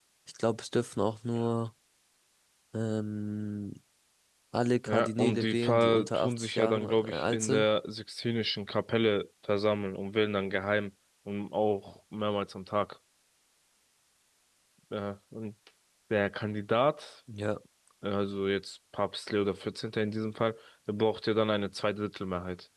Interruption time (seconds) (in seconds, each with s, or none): 4.9 s